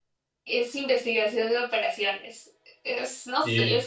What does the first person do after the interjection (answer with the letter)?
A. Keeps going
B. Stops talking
A